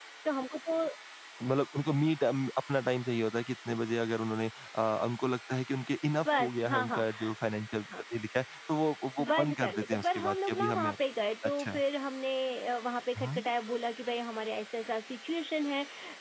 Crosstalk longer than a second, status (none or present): present